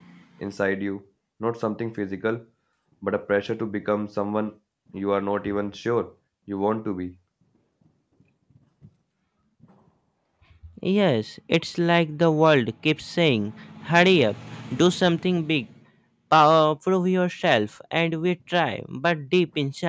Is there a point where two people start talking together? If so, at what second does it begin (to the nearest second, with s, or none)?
none